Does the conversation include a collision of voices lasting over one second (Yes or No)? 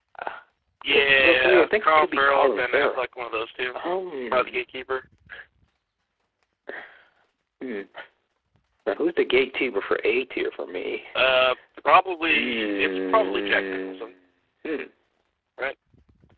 Yes